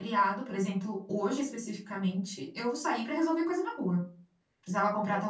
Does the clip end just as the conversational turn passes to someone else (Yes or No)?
No